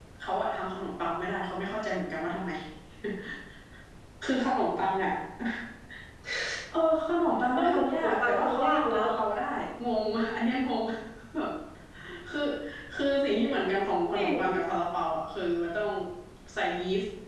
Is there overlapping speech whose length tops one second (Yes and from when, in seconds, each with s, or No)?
Yes, from 7.6 s